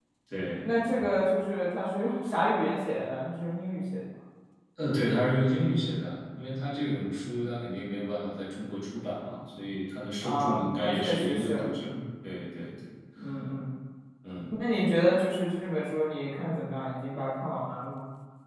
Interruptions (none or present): present